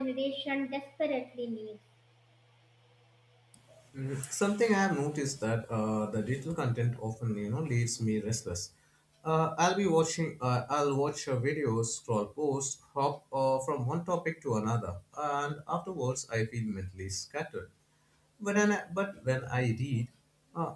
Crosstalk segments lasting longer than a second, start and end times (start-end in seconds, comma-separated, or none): none